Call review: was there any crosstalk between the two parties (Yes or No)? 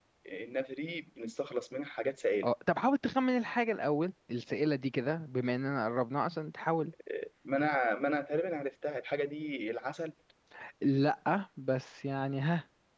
No